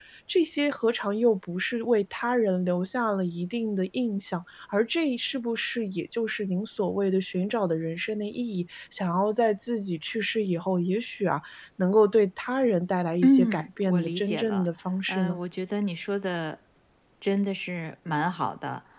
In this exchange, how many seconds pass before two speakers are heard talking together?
13.2 s

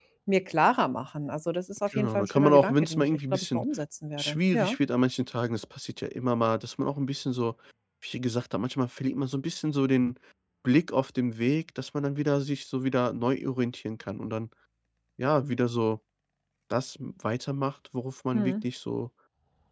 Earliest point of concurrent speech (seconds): 1.9 s

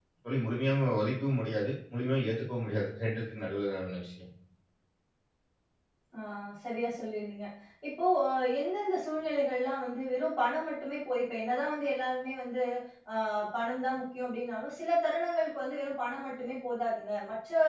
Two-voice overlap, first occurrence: none

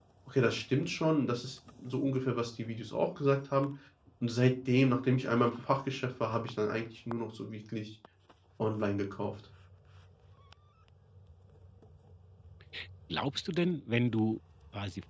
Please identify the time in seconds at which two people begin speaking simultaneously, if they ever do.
none

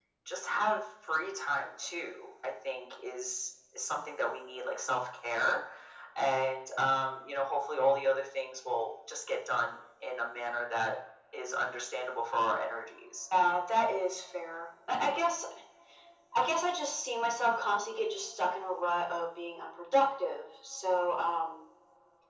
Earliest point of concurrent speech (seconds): none

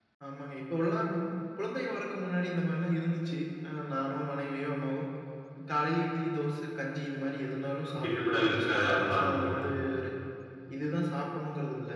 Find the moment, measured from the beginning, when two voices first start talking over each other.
8.0 s

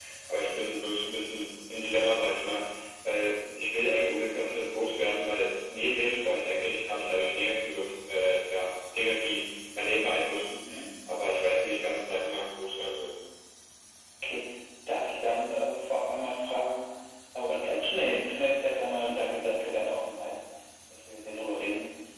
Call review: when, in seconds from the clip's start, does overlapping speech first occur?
none

